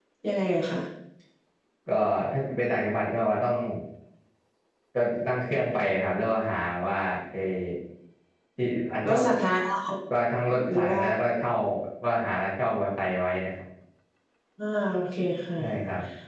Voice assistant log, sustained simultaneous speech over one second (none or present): none